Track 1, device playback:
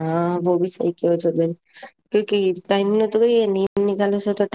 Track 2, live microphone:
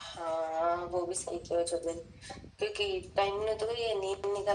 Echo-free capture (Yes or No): No